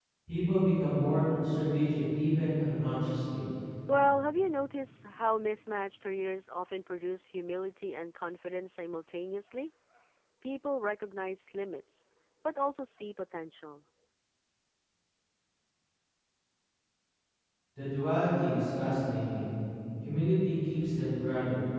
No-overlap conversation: Yes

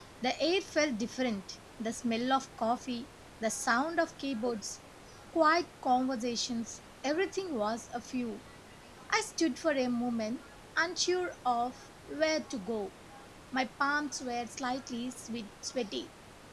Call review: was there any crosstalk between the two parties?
No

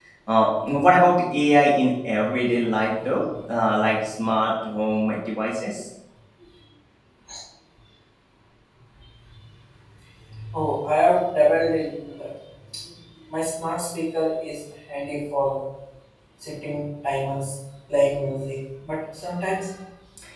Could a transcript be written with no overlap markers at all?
Yes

